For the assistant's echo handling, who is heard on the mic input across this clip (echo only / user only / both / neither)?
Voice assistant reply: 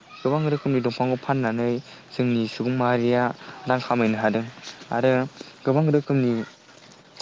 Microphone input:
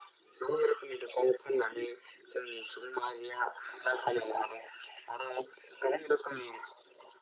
echo only